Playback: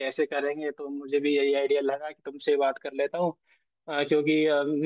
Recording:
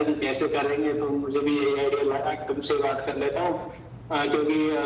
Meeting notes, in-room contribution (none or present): none